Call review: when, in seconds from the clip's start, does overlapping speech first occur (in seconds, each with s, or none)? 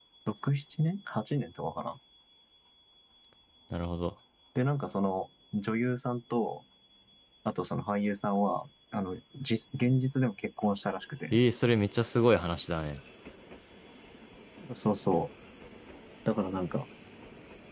none